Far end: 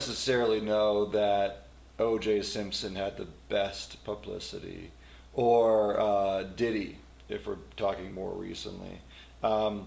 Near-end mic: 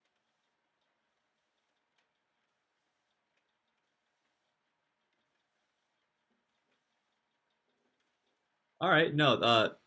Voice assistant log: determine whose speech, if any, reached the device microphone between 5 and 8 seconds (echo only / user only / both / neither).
neither